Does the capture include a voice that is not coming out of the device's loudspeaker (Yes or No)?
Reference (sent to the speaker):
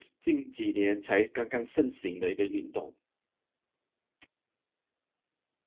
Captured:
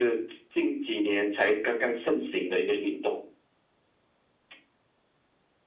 No